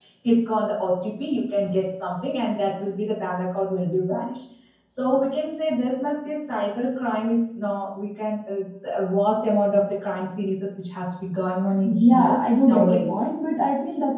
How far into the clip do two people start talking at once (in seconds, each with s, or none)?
11.8 s